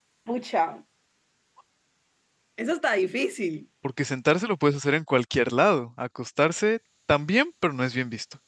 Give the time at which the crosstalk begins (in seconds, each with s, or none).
none